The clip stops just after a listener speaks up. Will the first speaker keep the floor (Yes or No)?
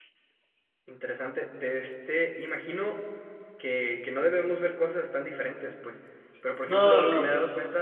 Yes